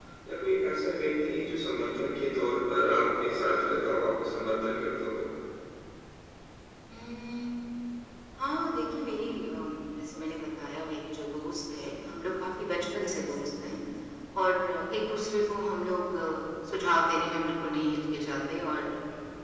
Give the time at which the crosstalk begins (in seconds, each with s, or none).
none